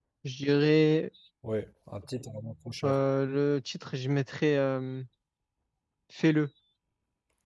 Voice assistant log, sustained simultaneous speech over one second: none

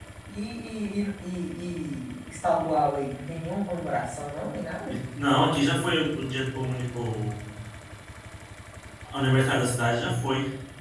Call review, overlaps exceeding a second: none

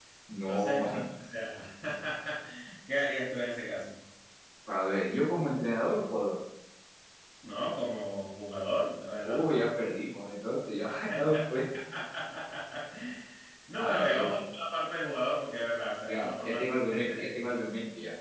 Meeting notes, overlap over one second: present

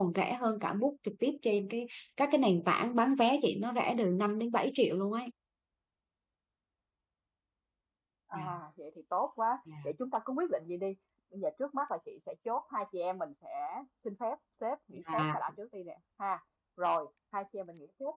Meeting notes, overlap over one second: none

